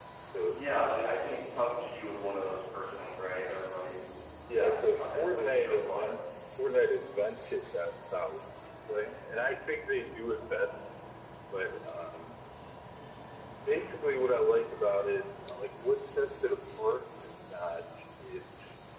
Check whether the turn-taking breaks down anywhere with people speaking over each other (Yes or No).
Yes